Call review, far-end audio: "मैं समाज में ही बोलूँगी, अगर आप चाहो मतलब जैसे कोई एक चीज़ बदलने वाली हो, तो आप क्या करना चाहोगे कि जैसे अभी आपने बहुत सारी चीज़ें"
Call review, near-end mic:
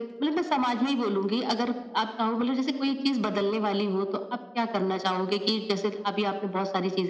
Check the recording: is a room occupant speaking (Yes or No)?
No